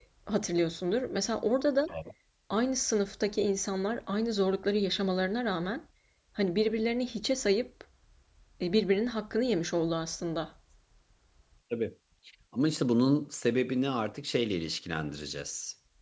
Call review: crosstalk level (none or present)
none